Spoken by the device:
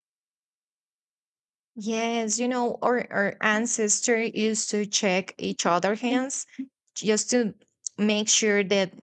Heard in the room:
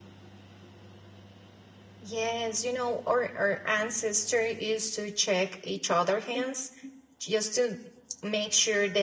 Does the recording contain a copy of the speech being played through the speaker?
Yes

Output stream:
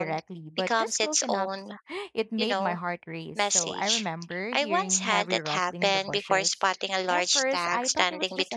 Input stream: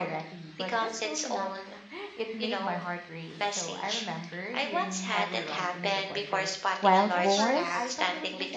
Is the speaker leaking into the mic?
Yes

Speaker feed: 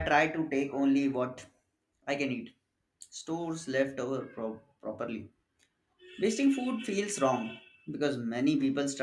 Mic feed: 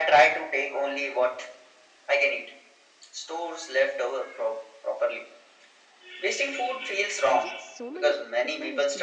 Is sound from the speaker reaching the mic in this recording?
Yes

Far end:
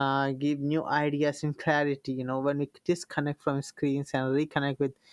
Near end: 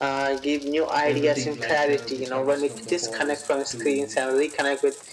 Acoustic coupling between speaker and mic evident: Yes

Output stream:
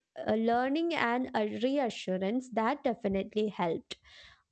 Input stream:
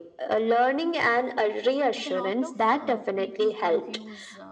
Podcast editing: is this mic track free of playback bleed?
No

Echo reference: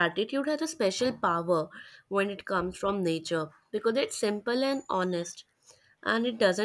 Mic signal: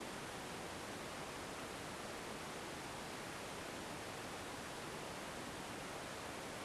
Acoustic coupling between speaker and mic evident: No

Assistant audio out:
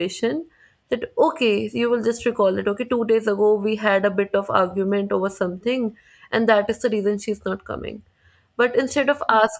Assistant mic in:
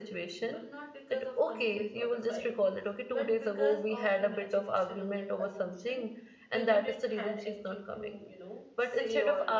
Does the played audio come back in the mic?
Yes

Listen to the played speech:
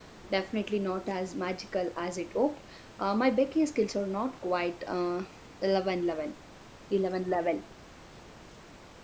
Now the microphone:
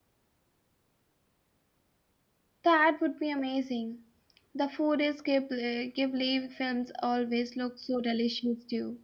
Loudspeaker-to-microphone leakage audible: No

